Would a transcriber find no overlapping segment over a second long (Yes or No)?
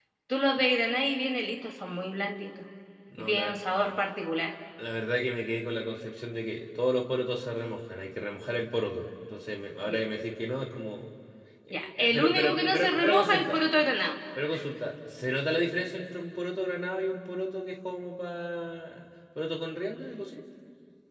No